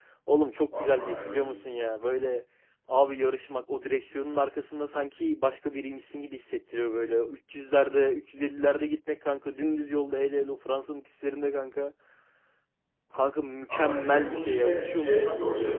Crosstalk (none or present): present